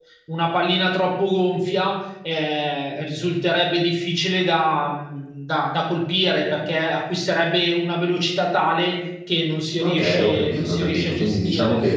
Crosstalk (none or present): present